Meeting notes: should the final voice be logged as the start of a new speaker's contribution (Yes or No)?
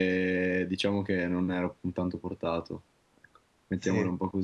No